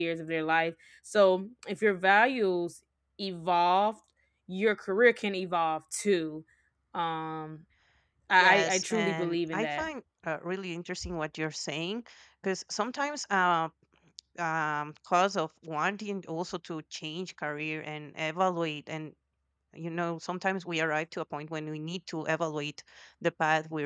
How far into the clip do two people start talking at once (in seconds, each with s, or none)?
8.4 s